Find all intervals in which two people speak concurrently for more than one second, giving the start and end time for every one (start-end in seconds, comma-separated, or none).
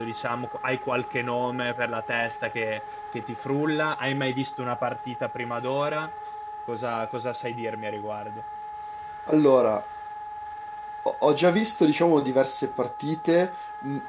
none